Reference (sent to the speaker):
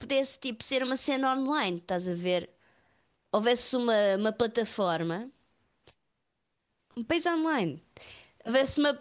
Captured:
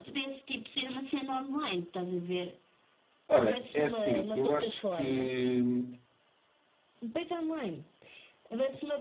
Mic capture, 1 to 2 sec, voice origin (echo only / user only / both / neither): echo only